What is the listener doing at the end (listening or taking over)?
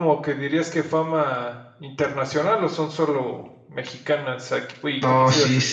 taking over